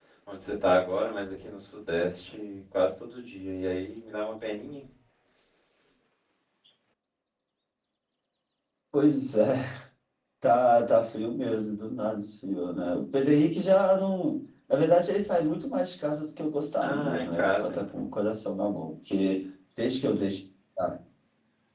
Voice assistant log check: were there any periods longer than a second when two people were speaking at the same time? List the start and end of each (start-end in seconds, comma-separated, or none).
16.8-18.1